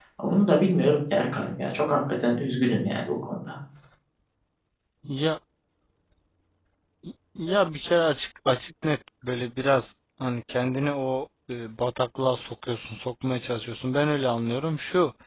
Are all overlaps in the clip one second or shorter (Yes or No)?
Yes